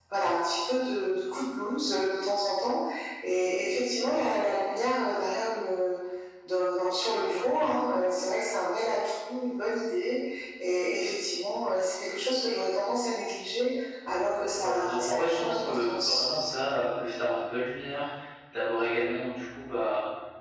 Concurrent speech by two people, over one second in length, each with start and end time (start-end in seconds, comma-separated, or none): 14.6-16.2